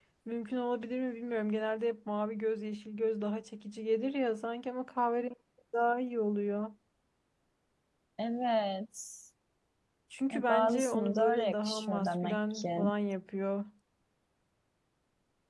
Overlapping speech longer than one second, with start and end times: 10.4-12.9

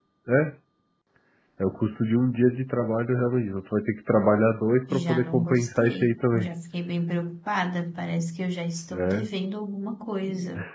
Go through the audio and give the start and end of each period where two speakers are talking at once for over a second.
4.9-6.5

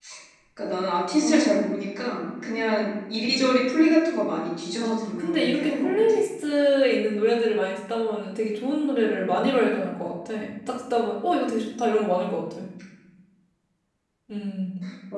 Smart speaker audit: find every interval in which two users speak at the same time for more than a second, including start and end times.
4.8-6.2

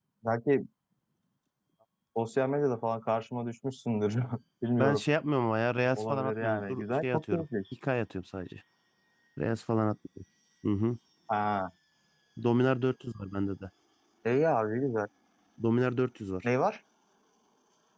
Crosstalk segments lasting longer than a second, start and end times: 6.0-7.4

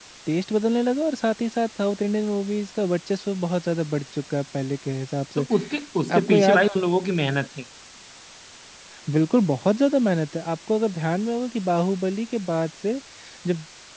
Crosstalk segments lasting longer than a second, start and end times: none

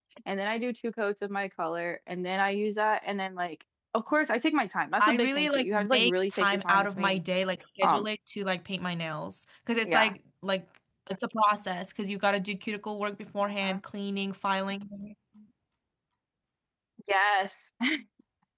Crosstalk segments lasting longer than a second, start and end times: 5.0-7.2

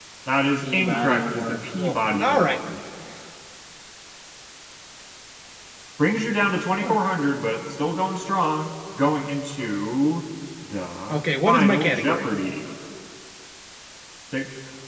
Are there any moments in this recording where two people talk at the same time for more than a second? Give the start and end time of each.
0.6-2.6, 11.1-12.3

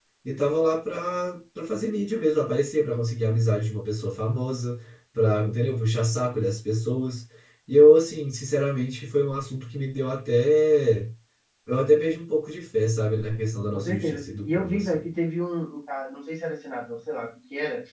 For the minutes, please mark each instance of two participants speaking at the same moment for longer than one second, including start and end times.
13.7-15.0

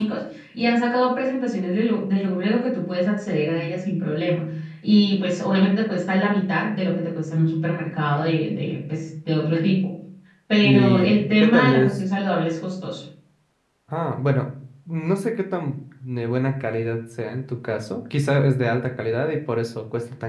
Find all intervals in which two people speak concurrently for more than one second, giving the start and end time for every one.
10.6-11.9

